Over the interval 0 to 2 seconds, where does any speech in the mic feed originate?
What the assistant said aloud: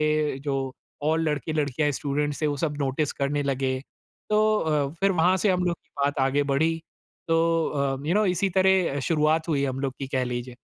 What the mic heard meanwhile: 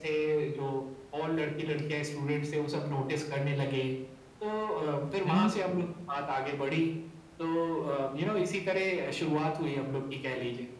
echo only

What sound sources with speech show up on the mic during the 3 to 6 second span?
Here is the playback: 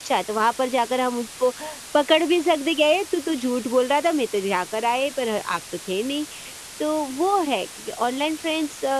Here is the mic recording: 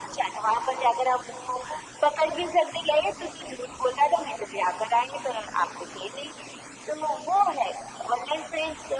echo only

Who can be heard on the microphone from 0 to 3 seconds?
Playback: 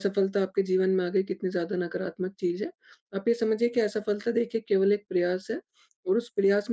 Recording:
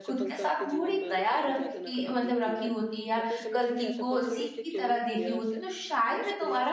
both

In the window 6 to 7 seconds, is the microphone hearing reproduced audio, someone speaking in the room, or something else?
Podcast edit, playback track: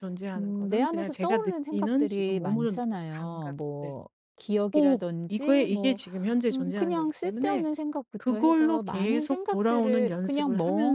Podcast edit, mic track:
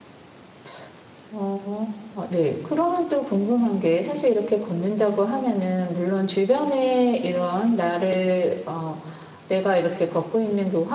user only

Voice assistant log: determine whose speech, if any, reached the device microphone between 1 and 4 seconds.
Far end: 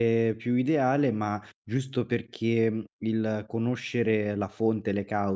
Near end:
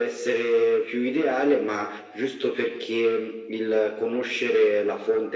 echo only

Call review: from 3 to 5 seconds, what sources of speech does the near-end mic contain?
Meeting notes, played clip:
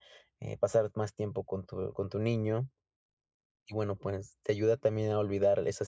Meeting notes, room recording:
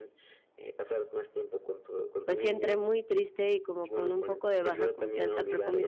both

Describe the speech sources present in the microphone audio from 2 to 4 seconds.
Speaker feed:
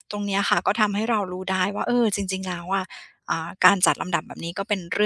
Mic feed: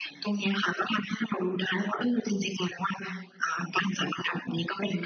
echo only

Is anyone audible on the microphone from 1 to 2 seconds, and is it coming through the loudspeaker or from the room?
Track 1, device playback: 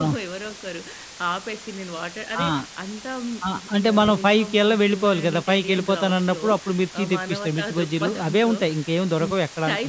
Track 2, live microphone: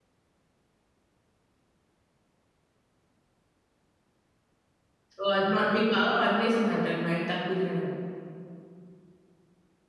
neither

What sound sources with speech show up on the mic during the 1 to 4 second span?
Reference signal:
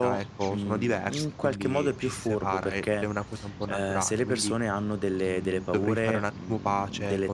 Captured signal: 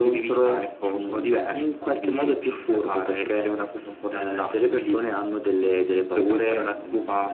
echo only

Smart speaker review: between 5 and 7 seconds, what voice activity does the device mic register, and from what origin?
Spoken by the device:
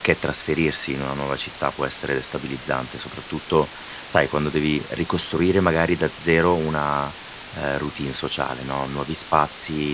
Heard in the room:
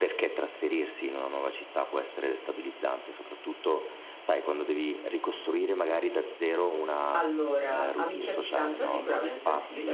echo only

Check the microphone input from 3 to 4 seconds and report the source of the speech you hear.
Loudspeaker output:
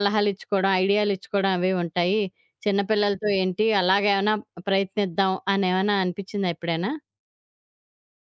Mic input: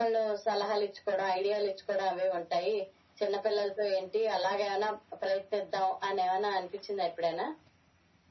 echo only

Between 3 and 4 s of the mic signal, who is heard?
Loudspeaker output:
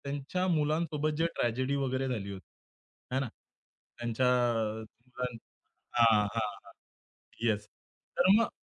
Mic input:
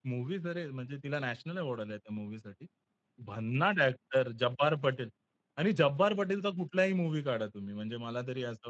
user only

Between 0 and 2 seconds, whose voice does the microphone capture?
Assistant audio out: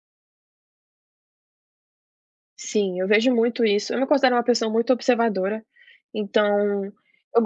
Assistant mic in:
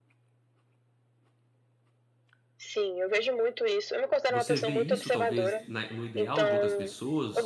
neither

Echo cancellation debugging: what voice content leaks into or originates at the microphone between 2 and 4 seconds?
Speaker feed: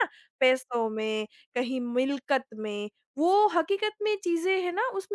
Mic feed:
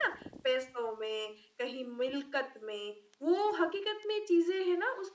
echo only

